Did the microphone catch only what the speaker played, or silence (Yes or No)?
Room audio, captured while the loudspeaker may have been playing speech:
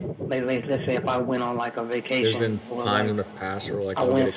No